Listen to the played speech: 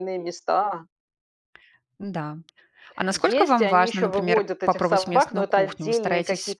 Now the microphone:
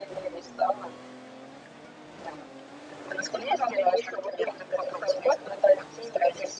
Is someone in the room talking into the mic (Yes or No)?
No